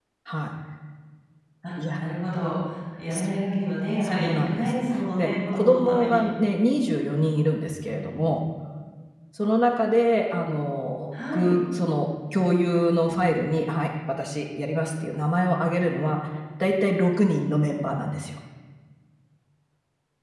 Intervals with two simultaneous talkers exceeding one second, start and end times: 4.0-6.2

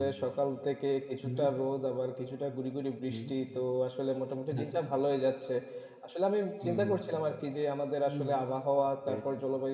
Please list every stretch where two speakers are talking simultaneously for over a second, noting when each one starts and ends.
none

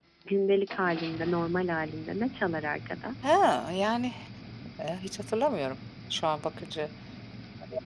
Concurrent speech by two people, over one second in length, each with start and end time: none

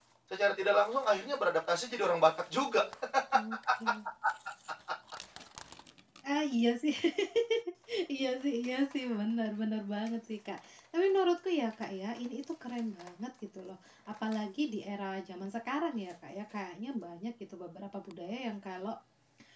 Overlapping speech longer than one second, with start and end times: none

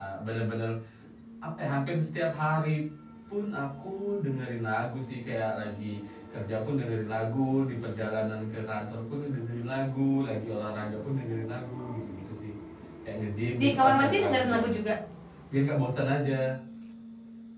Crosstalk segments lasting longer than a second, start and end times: 13.6-14.8

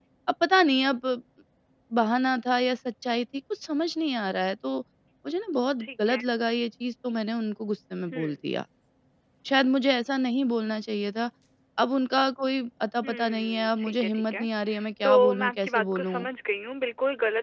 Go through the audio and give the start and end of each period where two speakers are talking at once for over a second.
13.0-14.5, 15.0-16.3

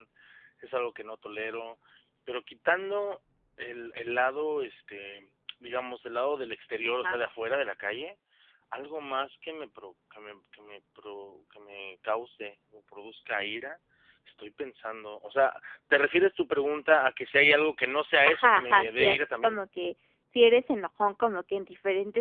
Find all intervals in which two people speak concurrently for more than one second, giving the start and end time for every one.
18.2-19.6

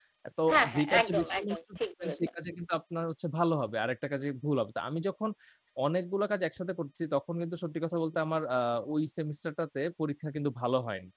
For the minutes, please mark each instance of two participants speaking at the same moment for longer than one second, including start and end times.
0.5-2.3

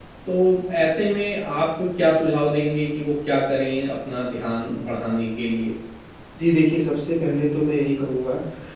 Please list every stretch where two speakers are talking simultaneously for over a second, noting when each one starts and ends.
none

